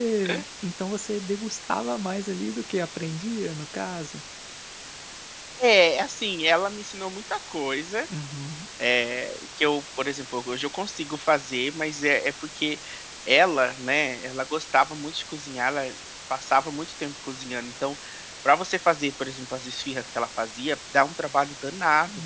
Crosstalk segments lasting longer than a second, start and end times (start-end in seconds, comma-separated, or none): none